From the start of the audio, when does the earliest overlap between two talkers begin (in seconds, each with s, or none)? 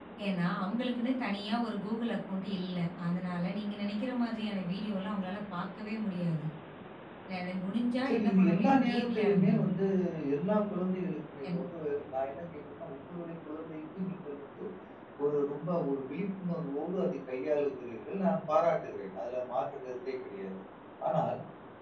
8.1 s